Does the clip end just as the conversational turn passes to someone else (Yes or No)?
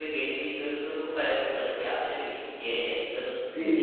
Yes